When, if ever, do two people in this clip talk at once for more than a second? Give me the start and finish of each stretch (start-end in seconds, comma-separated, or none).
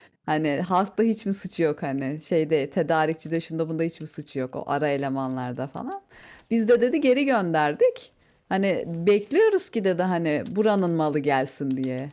none